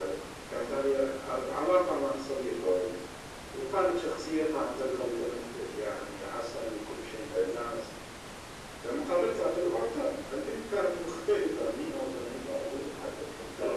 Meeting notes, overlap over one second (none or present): none